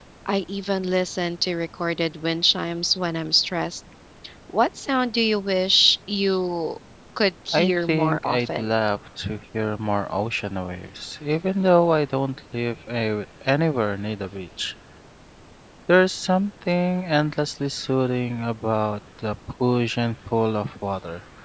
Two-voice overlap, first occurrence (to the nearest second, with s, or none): 8 s